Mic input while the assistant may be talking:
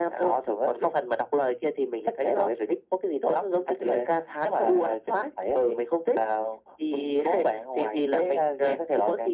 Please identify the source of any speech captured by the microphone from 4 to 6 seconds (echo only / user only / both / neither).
echo only